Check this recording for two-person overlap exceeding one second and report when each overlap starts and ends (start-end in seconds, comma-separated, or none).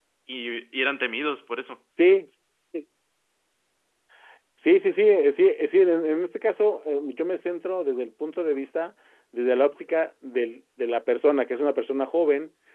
none